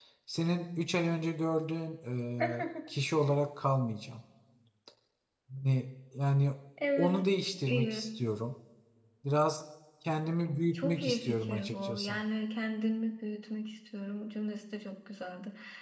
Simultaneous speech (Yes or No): Yes